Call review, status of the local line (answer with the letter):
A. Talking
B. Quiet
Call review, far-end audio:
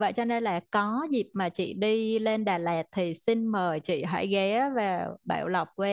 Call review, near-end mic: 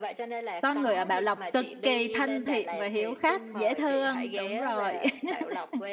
A